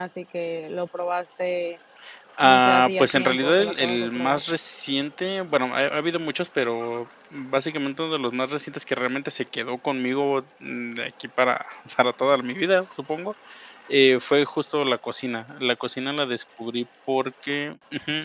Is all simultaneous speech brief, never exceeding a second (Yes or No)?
No